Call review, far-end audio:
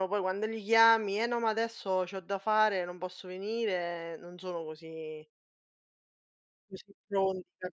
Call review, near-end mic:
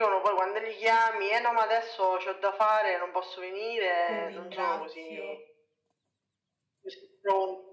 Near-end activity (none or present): present